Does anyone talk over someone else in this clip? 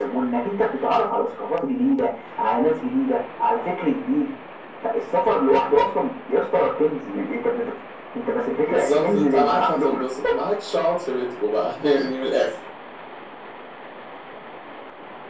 Yes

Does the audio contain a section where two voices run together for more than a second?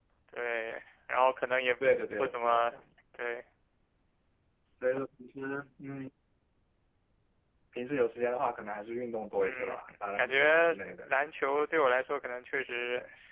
Yes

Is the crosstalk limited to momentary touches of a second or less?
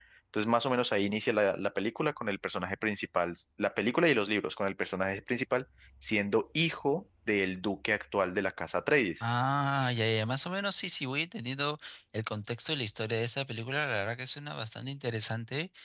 Yes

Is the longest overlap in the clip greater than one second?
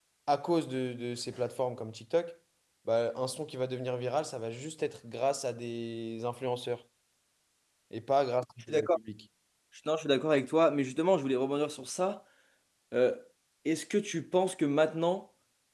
No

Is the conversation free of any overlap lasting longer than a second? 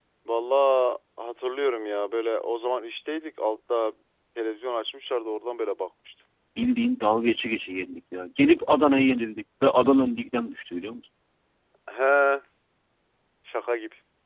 Yes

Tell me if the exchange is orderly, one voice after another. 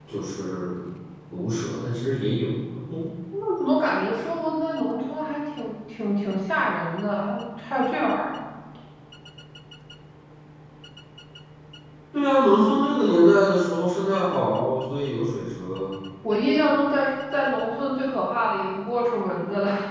Yes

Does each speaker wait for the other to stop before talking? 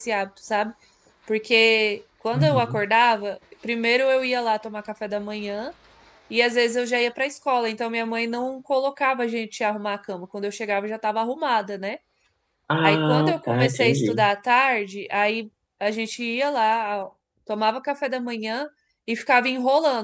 No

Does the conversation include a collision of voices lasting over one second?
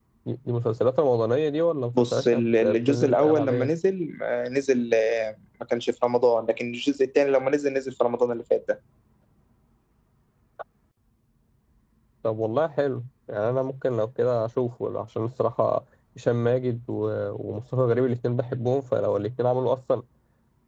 Yes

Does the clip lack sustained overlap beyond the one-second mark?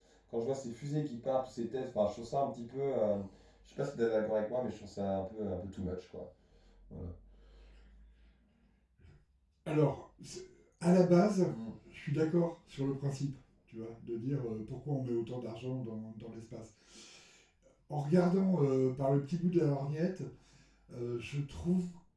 Yes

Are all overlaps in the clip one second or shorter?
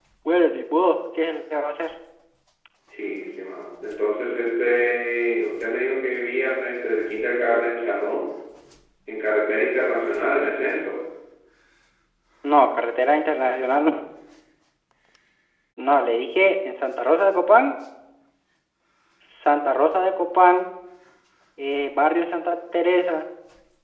Yes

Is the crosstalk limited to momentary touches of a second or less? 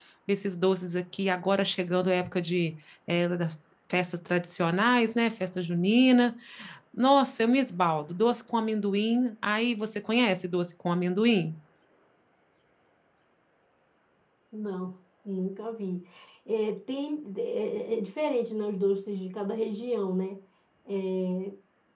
Yes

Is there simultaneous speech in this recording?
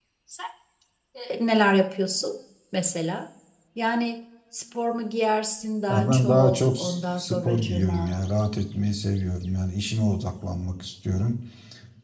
Yes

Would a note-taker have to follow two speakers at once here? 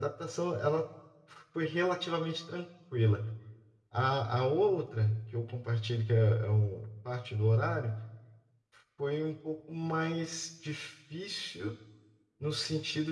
No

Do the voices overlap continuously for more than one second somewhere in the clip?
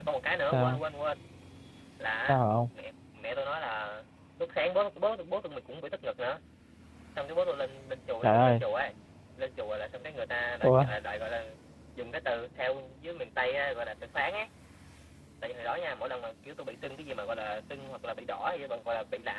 No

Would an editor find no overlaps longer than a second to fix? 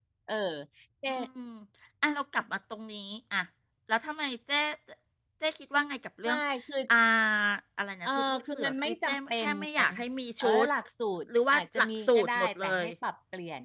No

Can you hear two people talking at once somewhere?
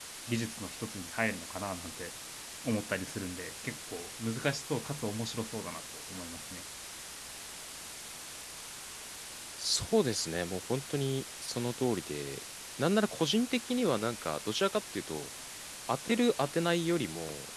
No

